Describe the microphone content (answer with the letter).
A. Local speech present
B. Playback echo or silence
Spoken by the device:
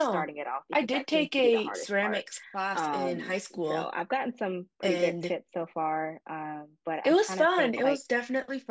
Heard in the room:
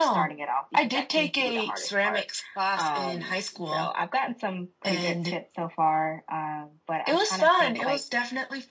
B